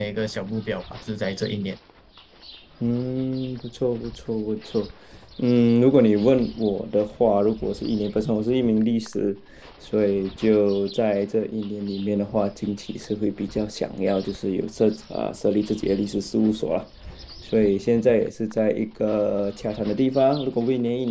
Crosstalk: none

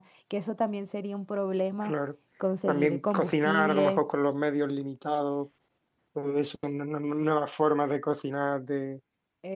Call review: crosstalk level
present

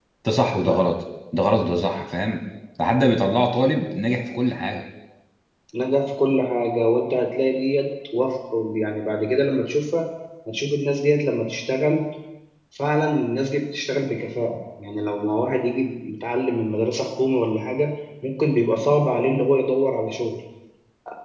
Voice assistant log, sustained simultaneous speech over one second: none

